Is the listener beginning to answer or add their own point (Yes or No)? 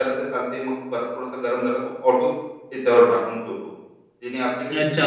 Yes